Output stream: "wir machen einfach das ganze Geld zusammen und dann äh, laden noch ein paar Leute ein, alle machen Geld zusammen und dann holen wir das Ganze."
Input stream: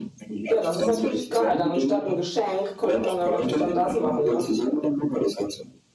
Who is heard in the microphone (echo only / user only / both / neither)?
both